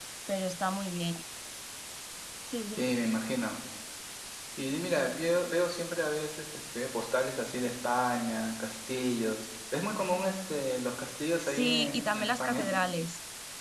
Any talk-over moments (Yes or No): Yes